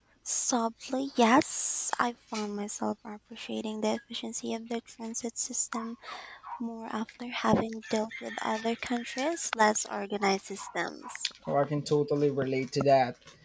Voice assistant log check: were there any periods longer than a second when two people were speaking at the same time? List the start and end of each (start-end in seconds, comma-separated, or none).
none